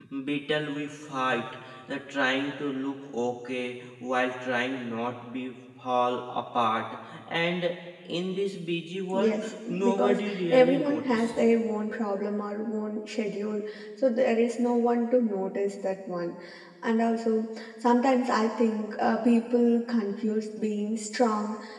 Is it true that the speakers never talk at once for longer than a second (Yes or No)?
No